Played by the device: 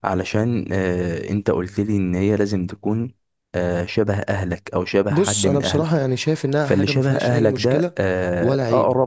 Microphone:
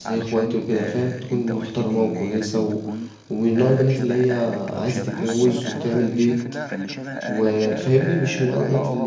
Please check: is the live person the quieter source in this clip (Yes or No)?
No